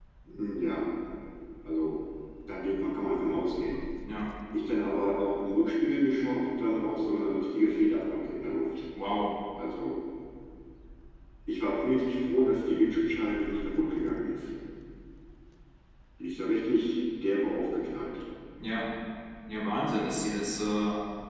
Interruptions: none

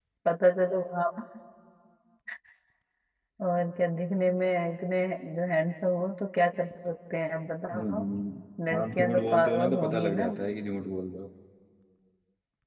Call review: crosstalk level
present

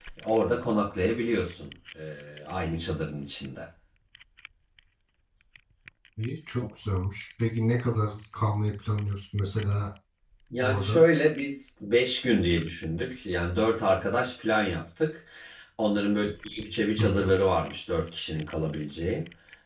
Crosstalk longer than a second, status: none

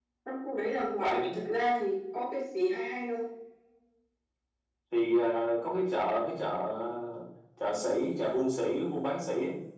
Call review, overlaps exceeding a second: none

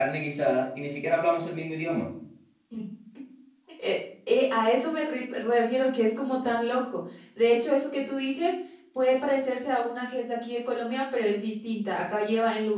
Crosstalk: none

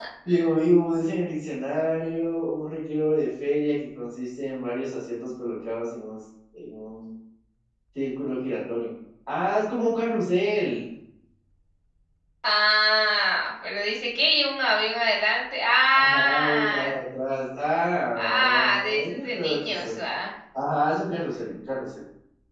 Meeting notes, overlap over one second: present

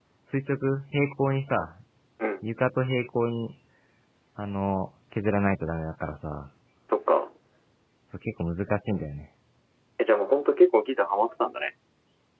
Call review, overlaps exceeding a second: none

